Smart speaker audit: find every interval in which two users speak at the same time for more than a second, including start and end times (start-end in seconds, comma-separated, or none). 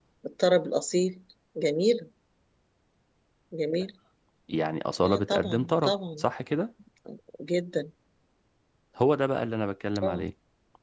5.0-6.2